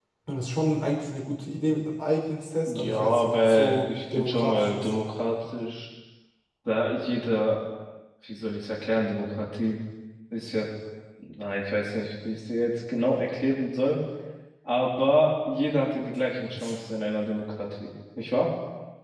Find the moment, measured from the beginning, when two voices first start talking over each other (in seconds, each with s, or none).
2.6 s